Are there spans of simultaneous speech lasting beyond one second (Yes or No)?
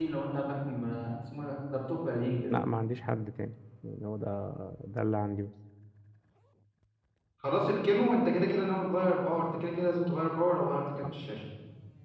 No